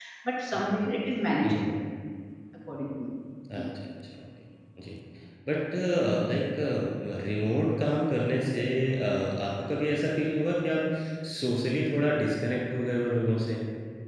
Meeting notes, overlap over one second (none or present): none